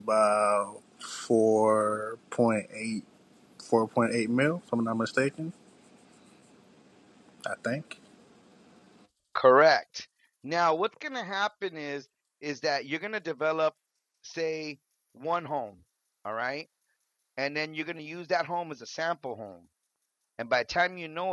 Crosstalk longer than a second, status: none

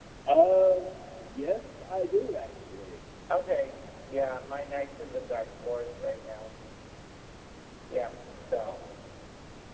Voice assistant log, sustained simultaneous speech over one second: none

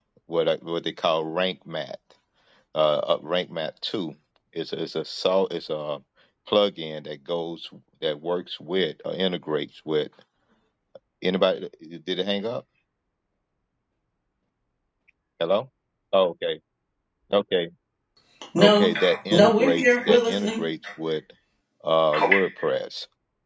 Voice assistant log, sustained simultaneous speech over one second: present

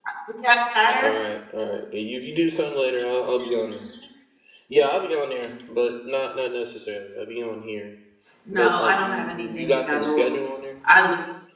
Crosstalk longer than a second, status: present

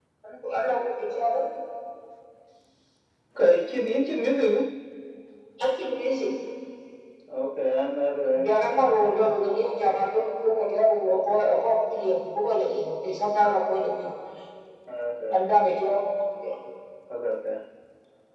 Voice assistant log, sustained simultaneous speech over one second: none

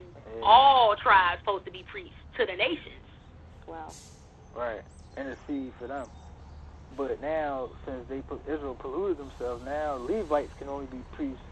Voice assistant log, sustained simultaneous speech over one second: none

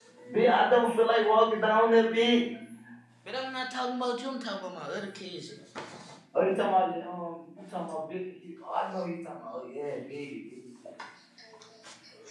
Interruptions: none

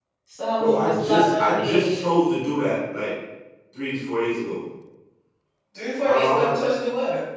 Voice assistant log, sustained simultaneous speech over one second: present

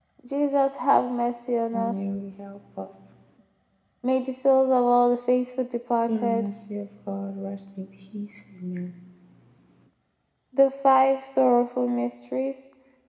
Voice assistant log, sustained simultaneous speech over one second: none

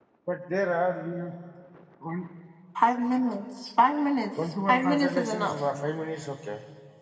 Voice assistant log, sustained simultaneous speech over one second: present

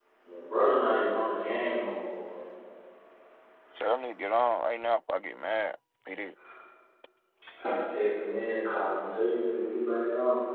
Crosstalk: none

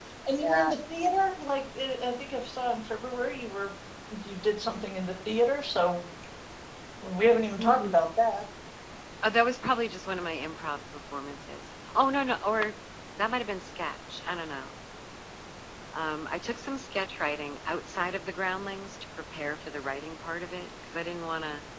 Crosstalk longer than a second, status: none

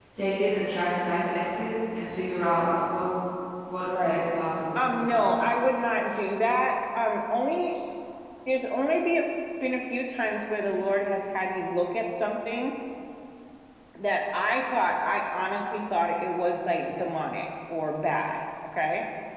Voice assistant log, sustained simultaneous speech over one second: none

